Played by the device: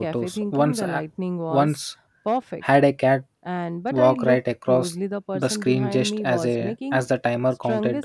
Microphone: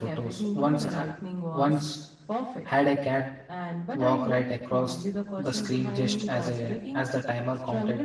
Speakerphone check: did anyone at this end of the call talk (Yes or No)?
No